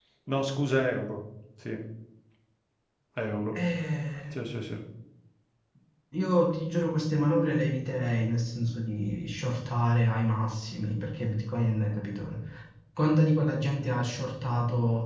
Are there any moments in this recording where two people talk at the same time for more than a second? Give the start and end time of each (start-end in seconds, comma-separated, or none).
none